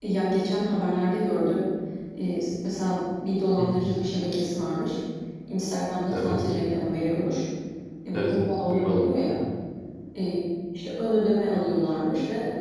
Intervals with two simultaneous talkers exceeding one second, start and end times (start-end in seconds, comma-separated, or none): 8.1-9.3